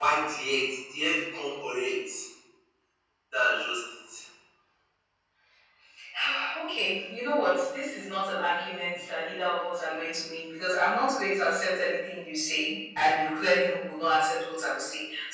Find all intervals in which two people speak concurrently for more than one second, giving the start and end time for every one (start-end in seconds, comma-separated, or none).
none